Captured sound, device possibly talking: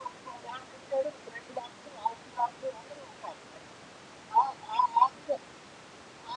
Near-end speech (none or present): none